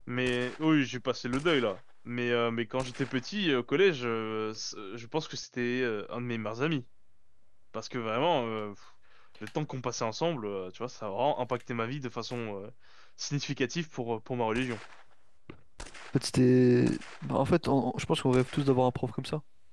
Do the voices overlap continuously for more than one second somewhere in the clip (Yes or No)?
No